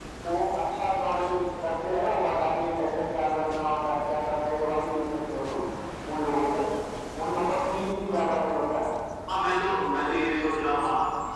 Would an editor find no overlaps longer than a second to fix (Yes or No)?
Yes